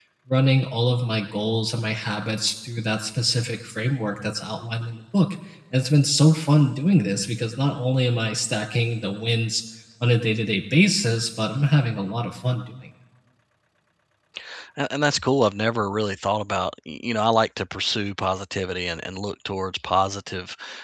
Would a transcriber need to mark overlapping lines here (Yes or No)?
No